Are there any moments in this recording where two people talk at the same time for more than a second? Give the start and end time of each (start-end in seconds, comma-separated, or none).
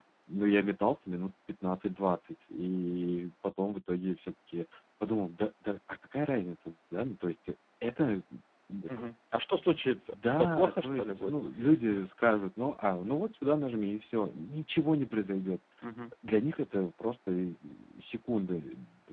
10.1-11.4